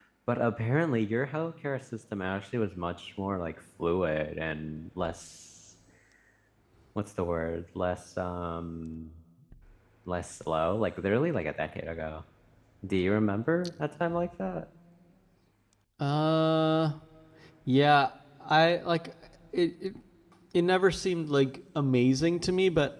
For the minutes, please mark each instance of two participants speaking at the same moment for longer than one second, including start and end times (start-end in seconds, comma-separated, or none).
none